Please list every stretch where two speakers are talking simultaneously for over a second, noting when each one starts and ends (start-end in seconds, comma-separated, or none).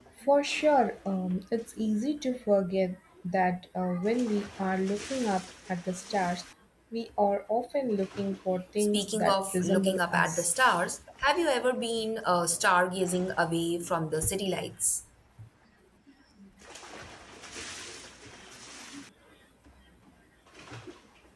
8.9-10.5